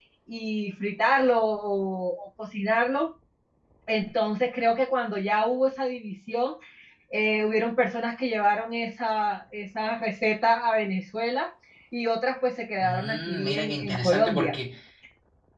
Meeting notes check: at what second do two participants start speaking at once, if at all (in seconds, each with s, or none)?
12.8 s